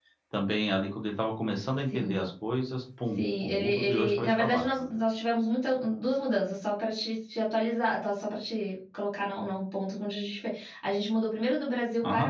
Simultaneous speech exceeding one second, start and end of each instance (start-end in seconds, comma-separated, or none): 3.2-4.6